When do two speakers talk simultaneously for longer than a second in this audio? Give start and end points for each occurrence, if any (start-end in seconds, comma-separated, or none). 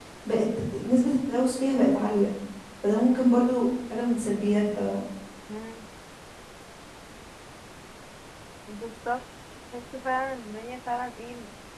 none